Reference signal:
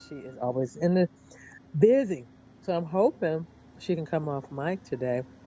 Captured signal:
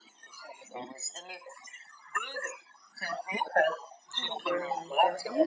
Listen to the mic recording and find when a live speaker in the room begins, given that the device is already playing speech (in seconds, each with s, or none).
4.2 s